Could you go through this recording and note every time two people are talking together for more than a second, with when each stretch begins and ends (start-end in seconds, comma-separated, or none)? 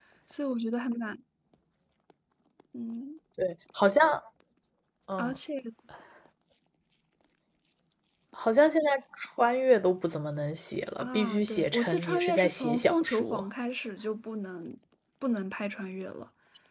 11.0-13.4